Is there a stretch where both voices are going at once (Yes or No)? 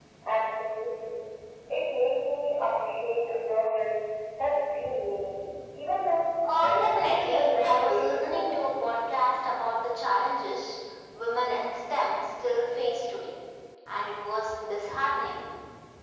Yes